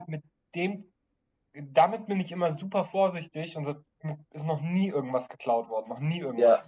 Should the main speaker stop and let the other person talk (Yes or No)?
Yes